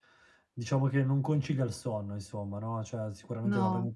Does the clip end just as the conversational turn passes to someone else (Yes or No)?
No